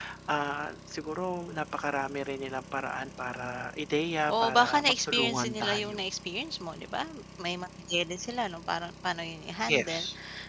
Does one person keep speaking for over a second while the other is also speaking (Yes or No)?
Yes